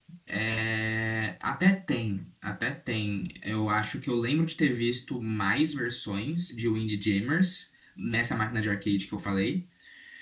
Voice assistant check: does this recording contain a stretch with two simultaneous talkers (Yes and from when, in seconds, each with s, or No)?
No